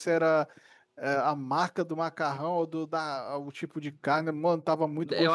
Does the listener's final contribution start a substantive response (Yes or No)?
Yes